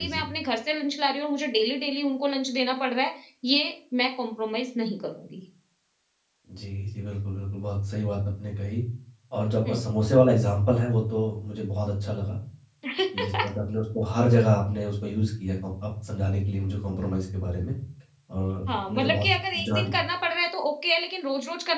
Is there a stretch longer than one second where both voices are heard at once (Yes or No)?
Yes